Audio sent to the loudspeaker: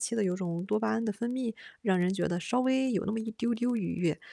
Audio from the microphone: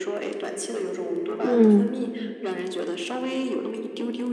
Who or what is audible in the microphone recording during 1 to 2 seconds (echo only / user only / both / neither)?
both